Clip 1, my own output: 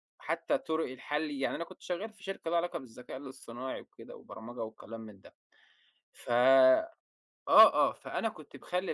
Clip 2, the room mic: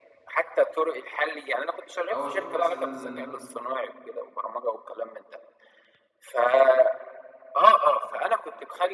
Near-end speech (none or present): present